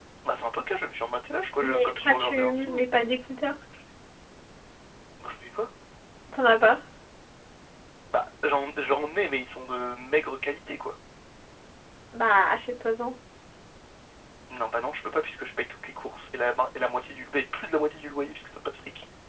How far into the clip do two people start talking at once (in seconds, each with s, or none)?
1.6 s